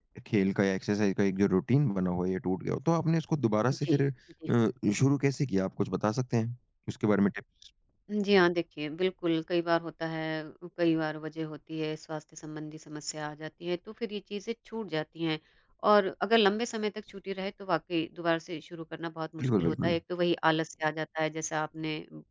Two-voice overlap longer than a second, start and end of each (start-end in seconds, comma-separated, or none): none